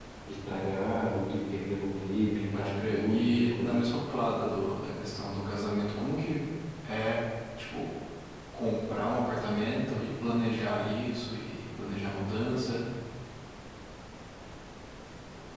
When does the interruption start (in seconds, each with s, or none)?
2.5 s